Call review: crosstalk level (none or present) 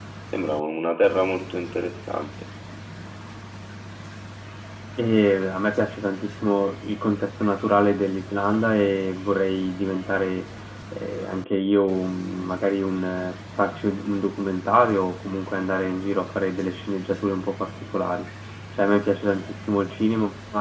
none